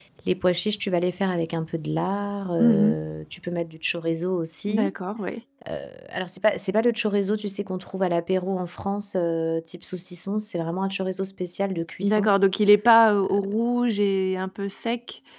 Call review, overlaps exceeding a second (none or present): none